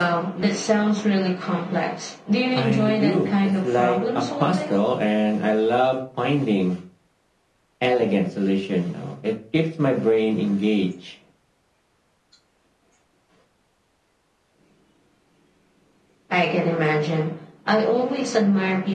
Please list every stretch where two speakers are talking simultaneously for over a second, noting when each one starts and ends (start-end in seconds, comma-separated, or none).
2.5-4.7